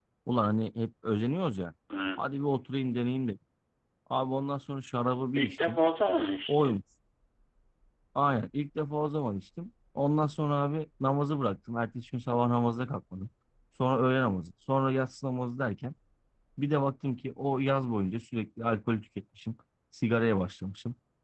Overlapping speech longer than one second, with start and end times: none

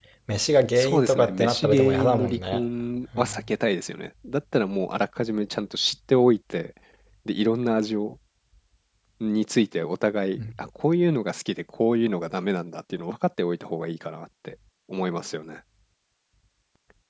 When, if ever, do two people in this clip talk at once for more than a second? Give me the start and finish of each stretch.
0.8-2.6

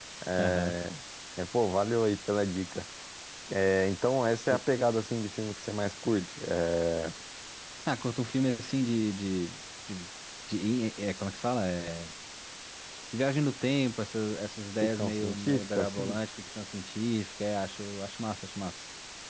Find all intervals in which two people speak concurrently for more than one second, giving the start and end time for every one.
14.8-16.2

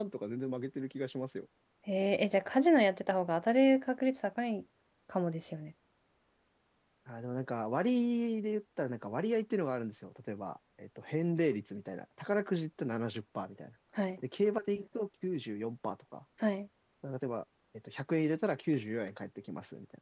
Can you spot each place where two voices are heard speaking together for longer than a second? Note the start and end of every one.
none

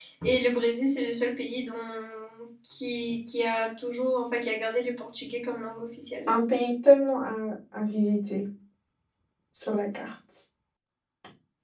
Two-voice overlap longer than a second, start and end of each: none

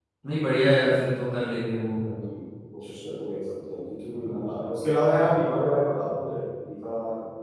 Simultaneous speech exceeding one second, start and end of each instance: none

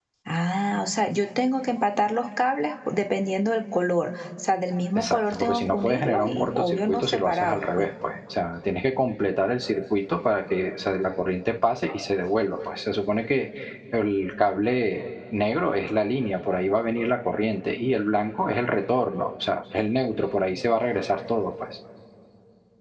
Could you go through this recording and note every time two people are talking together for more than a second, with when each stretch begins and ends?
5.0-7.9

